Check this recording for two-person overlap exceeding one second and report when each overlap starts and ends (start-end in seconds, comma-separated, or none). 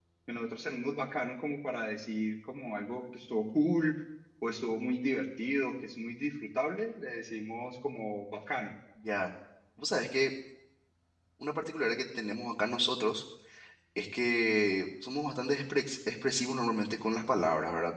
none